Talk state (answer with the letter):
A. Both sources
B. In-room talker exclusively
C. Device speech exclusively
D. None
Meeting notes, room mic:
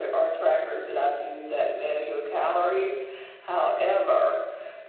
C